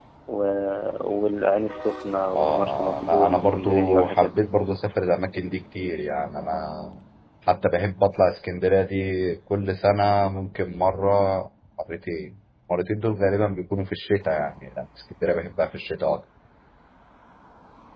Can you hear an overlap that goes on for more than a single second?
Yes, from 2.3 s

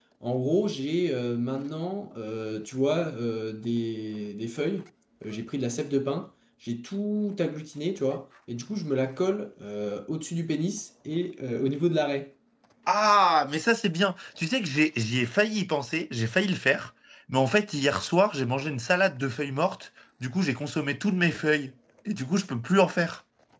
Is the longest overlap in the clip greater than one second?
No

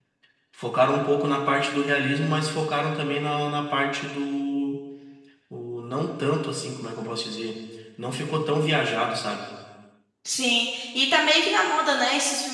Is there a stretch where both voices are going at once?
No

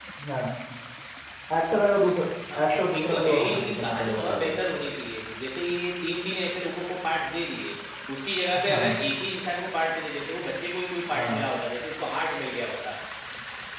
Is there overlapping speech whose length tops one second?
Yes, from 2.7 s

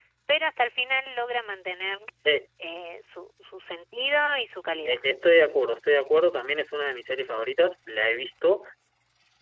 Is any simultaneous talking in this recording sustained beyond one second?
No

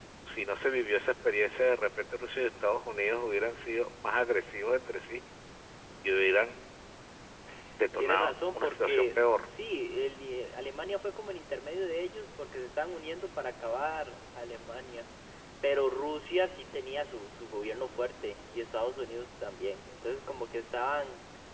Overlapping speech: Yes, from 8.0 s

